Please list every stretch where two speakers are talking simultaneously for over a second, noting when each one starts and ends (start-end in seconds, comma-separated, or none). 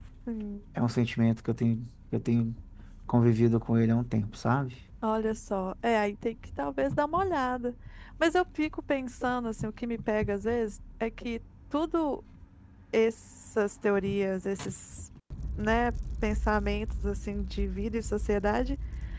none